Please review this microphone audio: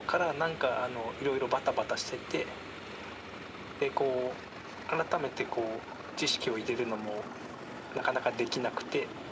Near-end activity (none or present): none